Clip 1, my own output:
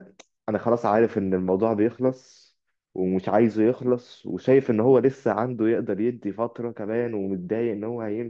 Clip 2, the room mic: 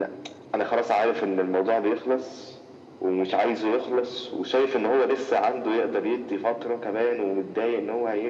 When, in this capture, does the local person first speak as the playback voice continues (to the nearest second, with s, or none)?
none